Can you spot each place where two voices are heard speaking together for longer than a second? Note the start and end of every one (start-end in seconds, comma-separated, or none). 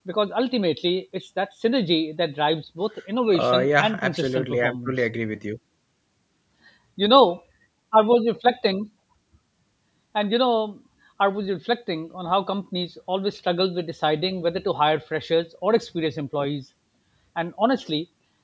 3.3-5.0